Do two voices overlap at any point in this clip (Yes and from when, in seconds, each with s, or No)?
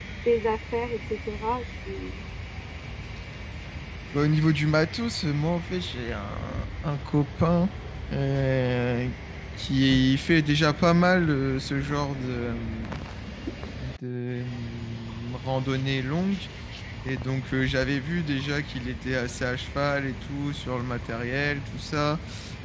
No